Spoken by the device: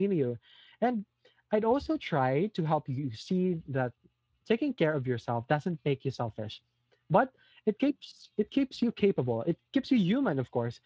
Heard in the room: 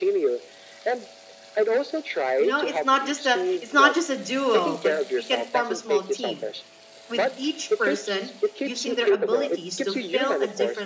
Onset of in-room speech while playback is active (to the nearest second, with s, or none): 2 s